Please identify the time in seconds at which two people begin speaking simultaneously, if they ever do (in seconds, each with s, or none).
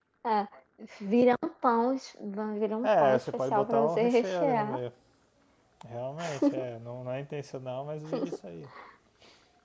2.8 s